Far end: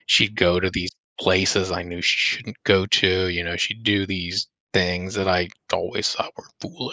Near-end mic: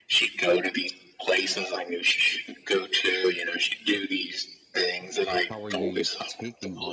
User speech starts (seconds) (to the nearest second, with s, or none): 6 s